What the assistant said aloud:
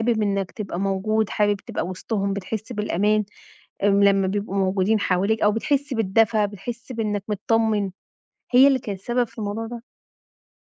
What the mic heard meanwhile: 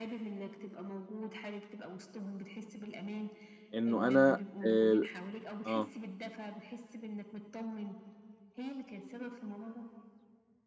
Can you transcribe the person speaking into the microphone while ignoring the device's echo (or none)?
إنه أنا آآ آه،